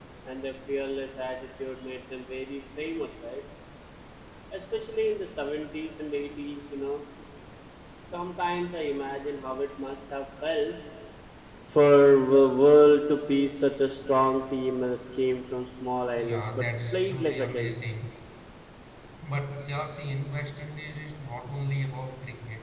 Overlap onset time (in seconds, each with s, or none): 16.2 s